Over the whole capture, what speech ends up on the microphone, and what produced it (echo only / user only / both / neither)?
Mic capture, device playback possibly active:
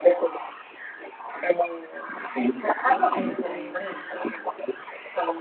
both